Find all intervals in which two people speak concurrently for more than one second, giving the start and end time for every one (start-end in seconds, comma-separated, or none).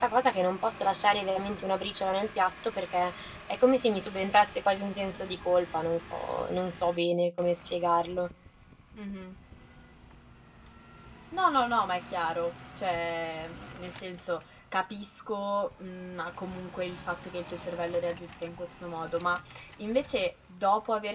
none